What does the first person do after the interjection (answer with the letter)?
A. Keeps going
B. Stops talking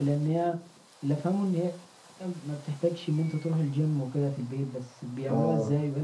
B